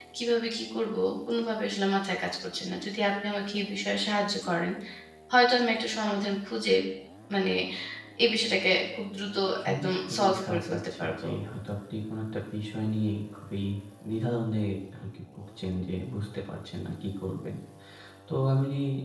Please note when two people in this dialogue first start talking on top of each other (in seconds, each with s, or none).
9.7 s